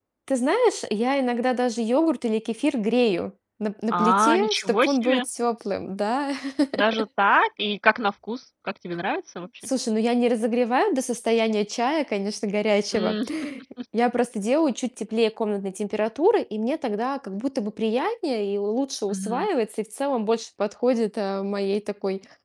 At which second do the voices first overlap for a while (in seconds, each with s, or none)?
3.9 s